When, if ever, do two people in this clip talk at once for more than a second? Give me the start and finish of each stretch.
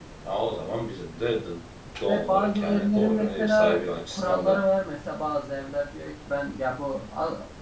2.1-4.6

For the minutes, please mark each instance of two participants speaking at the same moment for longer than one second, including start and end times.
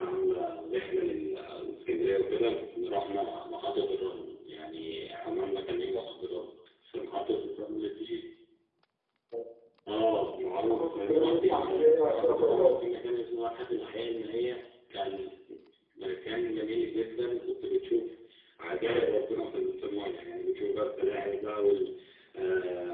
10.7-12.8

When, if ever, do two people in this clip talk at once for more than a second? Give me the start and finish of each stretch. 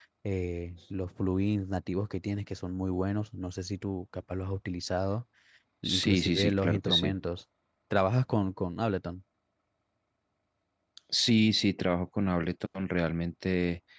5.8-7.2

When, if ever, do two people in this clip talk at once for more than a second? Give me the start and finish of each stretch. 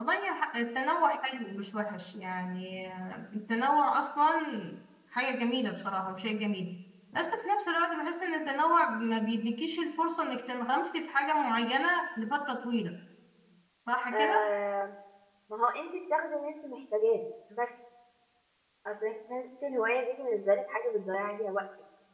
none

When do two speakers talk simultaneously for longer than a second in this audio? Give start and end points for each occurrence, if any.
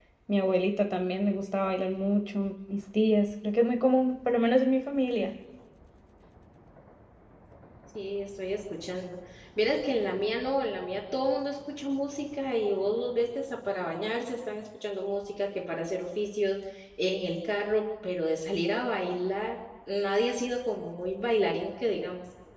none

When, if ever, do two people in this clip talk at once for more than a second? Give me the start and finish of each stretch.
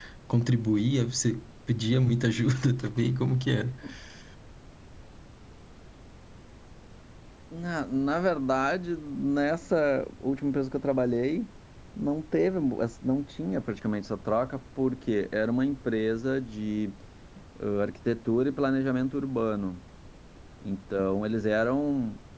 none

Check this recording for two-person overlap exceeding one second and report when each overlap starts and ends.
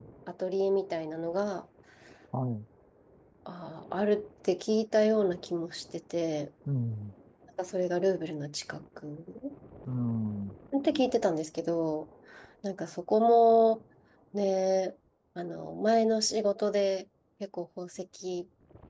none

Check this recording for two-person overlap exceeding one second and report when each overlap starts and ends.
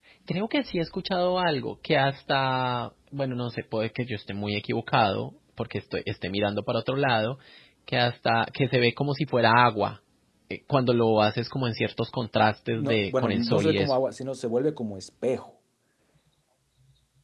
12.7-13.9

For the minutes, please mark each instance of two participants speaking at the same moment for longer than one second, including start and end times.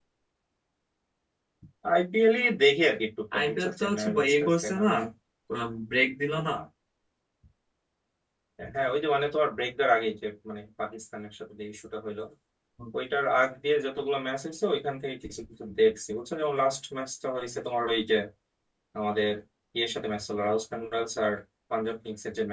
3.4-4.9

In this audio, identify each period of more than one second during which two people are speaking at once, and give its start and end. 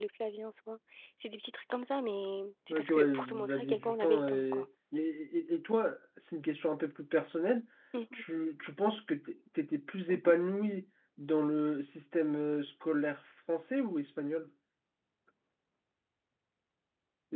2.7-4.6

